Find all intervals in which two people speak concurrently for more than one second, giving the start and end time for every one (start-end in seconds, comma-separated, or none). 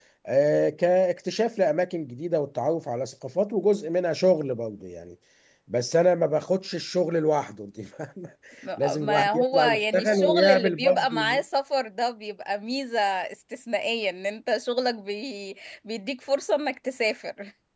8.8-11.4